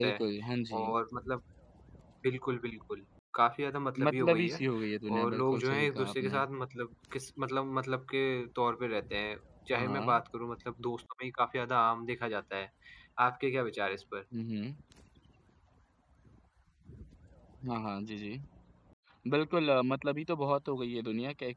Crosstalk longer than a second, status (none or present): present